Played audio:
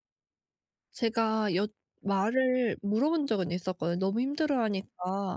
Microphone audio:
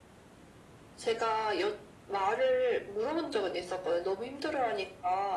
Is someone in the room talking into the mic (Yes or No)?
No